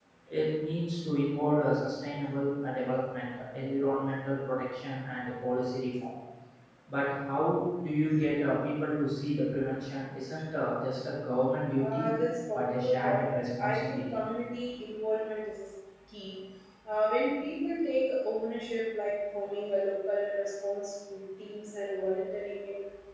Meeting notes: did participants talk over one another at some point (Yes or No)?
Yes